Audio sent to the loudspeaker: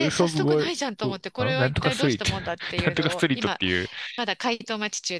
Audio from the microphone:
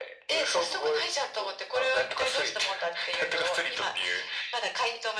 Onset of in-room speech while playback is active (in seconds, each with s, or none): none